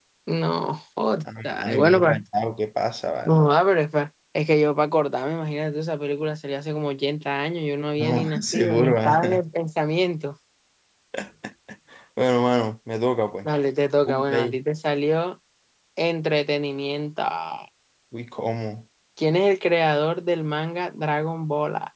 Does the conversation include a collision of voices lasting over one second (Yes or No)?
Yes